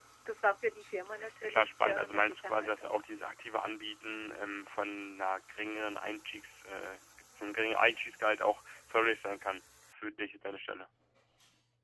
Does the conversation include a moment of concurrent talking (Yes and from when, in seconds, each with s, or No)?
Yes, from 1.4 s